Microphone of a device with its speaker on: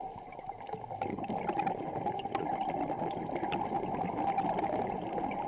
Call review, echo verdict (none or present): none